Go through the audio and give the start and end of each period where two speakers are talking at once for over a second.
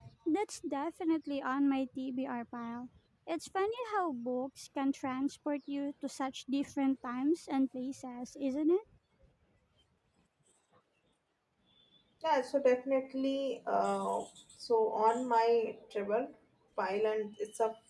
none

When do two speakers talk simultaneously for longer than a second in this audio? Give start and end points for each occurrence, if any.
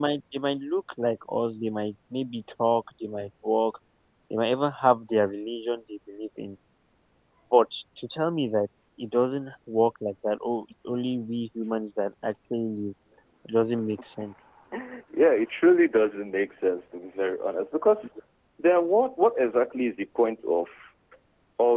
none

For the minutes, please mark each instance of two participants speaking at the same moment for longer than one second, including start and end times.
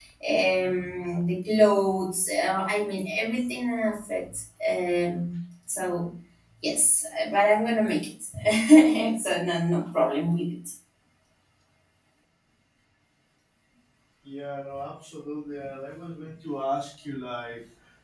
none

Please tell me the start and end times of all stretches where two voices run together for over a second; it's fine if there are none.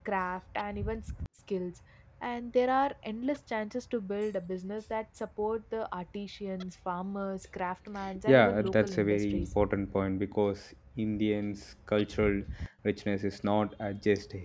8.3-9.5

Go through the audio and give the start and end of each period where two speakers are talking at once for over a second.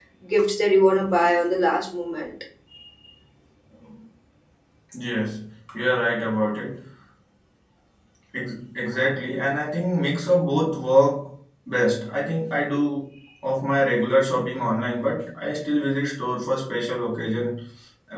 none

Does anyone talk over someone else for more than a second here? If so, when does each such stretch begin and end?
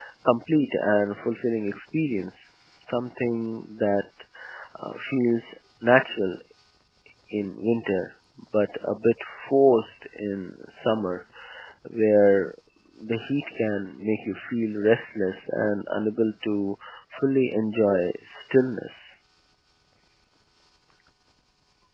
none

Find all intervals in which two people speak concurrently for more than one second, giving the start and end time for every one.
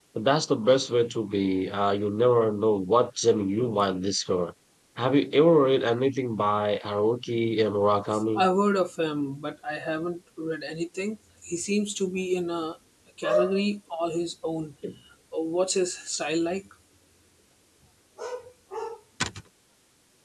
none

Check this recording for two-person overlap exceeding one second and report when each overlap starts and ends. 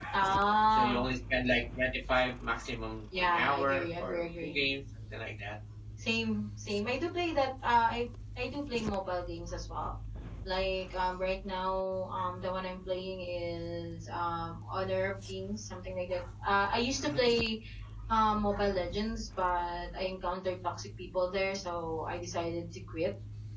3.2-4.6

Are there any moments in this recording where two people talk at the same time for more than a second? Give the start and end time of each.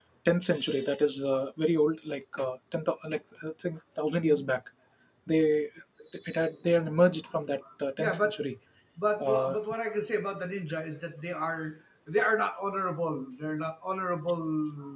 none

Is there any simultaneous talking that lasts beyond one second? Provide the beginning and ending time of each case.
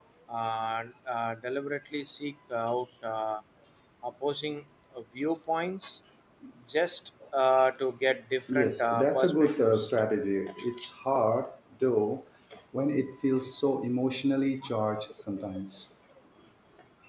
8.5-9.9

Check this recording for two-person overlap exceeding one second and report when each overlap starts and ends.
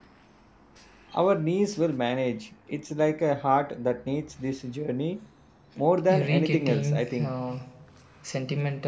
6.1-7.3

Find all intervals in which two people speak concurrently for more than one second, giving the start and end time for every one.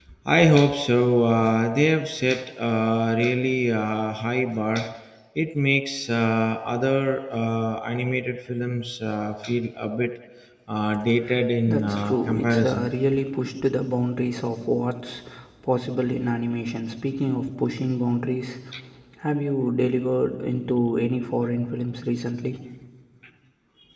11.7-12.9

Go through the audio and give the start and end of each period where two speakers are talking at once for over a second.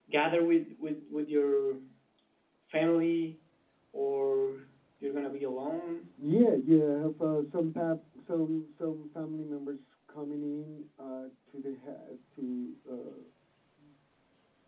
none

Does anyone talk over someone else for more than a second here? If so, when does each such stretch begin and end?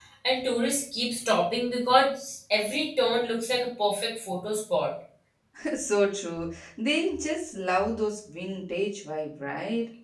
none

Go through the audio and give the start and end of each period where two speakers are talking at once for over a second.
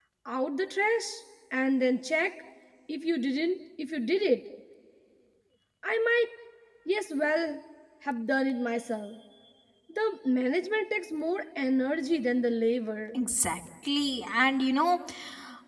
none

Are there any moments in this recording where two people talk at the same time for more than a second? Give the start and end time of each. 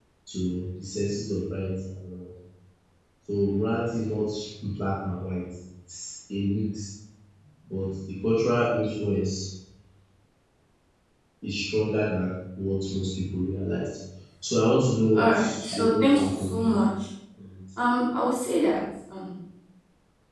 15.1-16.8

